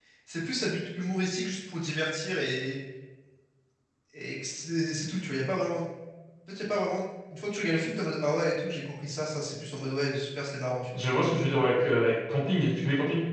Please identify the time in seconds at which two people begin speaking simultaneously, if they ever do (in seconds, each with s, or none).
none